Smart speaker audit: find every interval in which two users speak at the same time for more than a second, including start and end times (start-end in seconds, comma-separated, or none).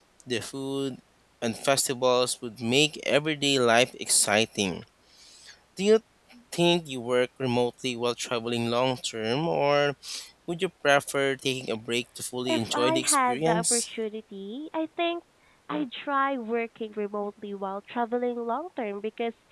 12.5-13.9